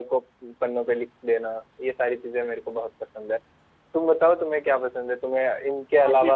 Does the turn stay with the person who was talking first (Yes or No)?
Yes